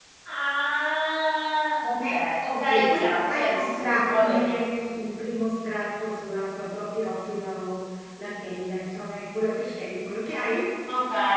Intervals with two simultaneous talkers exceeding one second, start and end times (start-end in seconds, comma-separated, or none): 2.6-4.5